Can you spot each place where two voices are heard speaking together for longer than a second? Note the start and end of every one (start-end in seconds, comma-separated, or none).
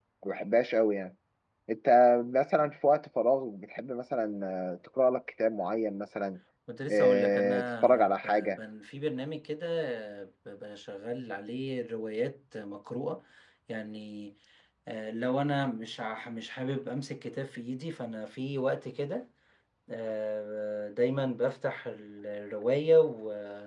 6.9-8.6